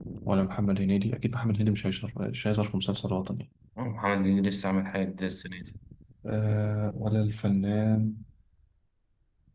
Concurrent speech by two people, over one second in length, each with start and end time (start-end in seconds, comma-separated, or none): none